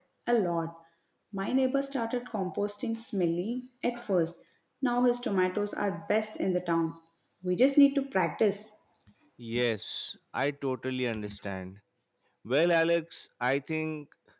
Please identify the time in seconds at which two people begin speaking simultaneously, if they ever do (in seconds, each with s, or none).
none